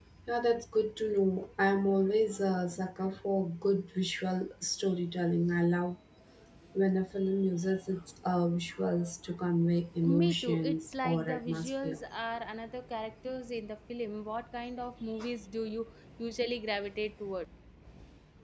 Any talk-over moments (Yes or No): Yes